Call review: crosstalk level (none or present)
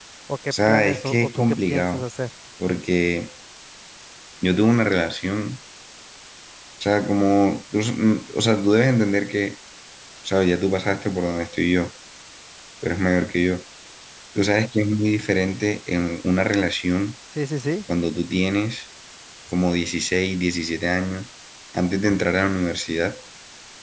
present